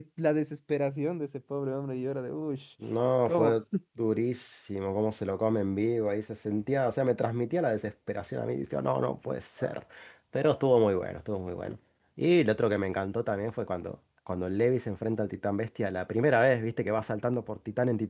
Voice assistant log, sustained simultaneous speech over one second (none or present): none